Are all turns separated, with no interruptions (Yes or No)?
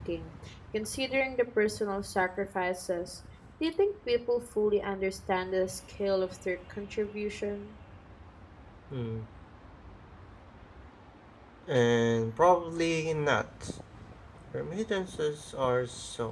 Yes